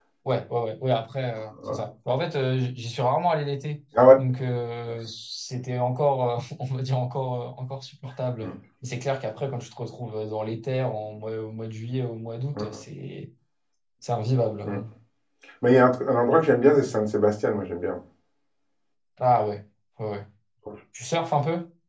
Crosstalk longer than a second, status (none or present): none